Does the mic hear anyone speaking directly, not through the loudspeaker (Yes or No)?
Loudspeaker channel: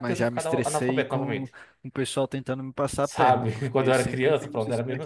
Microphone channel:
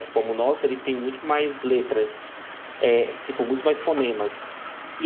Yes